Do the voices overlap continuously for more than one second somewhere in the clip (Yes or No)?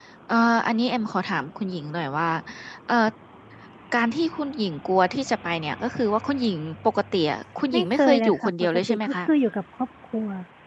Yes